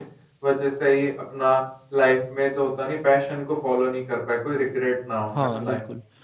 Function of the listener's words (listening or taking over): taking over